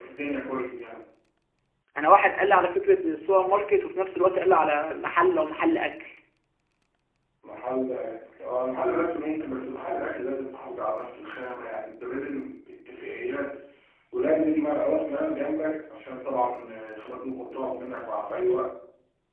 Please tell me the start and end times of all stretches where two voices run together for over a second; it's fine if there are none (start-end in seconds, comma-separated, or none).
none